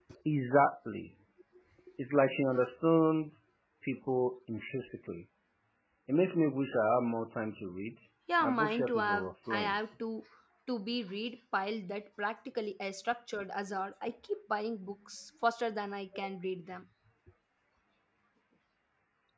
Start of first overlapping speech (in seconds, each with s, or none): 8.4 s